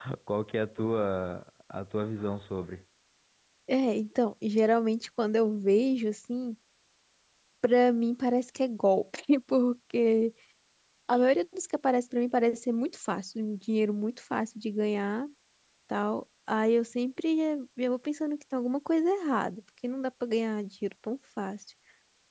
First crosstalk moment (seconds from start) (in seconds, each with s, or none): none